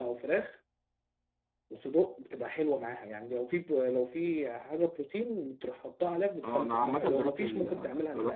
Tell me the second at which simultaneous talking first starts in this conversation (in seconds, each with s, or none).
6.4 s